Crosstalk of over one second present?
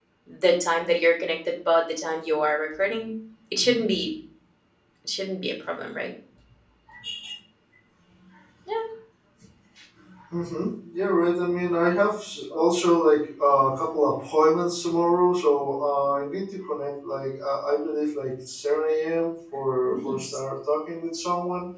No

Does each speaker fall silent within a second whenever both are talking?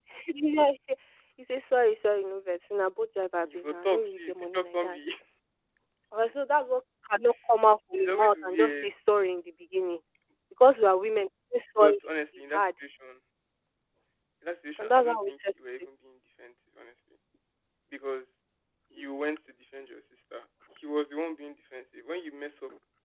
No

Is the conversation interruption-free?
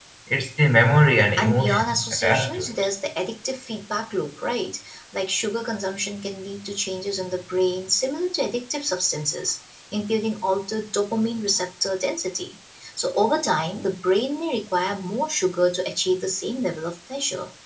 No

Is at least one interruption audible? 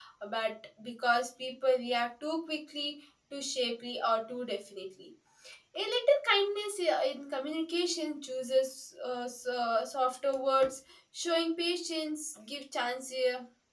No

